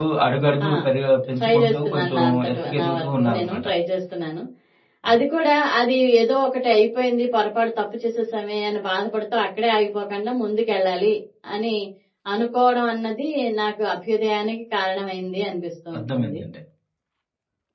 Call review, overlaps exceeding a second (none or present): present